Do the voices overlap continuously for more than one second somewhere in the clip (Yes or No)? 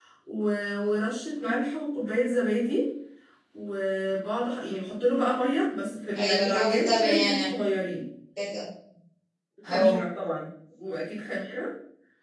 Yes